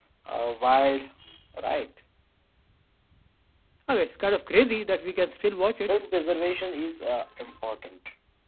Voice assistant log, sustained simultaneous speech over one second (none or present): none